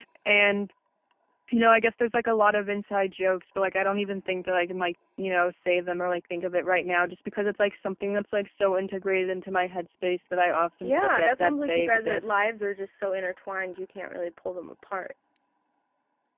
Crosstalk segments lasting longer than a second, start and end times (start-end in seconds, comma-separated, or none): 10.8-12.4